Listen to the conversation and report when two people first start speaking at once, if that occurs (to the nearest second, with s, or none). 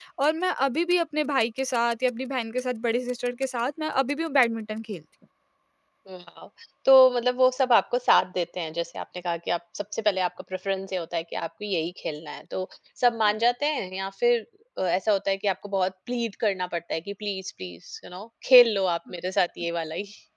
none